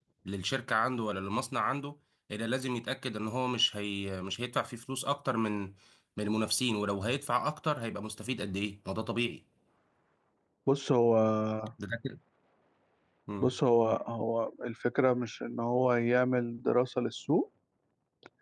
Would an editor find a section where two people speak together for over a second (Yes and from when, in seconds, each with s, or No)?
No